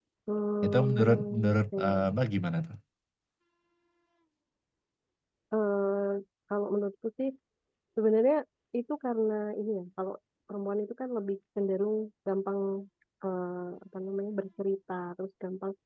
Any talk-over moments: Yes, from 0.6 s

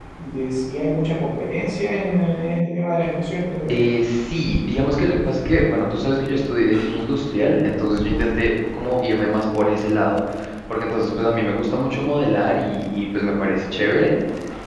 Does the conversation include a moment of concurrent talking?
No

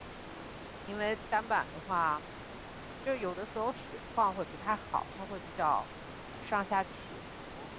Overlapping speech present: No

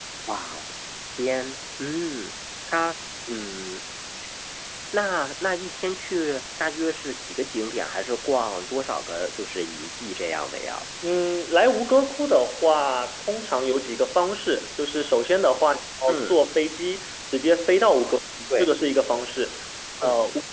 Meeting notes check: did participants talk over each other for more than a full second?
No

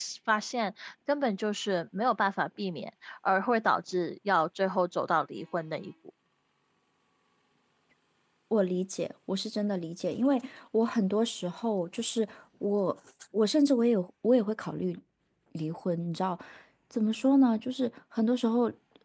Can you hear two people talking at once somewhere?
No

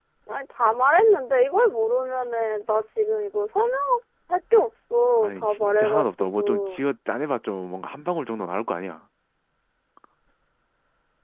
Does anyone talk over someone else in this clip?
Yes, from 5.2 s

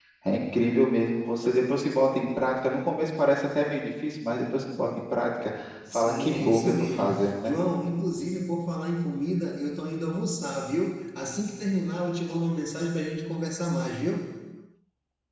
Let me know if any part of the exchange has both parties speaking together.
Yes, from 5.9 s

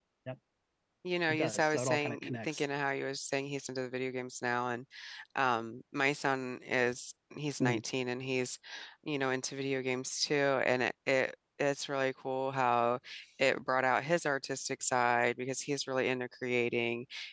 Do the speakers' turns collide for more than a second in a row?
Yes, from 1.3 s

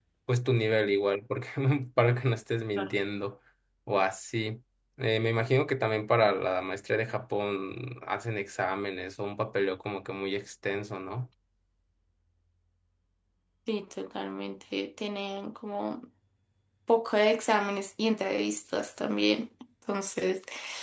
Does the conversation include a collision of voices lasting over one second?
No

